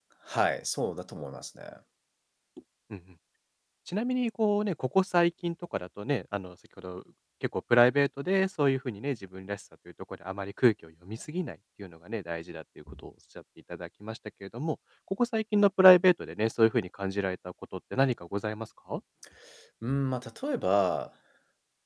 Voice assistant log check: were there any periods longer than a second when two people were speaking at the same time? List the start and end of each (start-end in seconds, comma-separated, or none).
none